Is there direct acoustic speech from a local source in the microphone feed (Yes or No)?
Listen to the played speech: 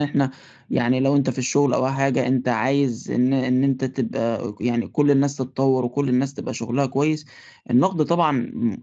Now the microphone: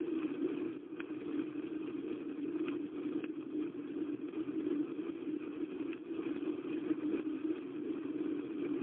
No